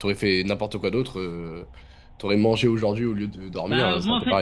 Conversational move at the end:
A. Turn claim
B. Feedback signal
A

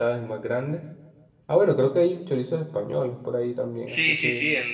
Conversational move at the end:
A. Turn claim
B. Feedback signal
A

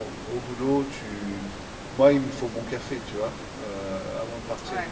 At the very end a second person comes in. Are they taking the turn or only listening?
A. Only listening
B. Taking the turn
A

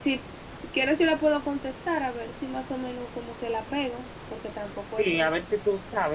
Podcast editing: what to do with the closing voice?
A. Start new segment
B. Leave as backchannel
A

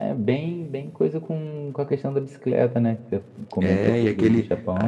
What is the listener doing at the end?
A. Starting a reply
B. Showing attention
A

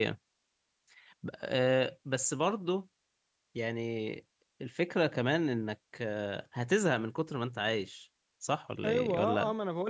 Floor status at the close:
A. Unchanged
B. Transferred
B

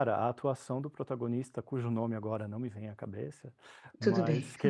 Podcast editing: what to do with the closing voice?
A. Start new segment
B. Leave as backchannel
B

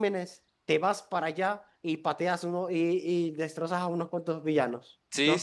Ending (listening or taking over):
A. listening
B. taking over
B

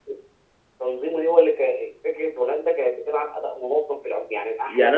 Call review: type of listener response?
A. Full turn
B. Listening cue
A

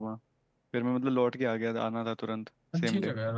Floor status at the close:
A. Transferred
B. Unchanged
A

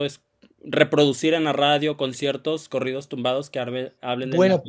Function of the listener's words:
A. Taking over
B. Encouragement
A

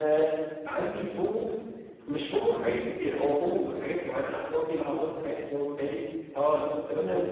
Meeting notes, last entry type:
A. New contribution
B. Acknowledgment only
B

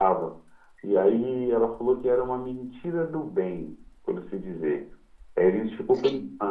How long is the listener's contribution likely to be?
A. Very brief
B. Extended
A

